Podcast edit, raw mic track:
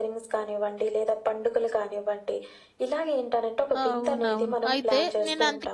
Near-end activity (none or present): present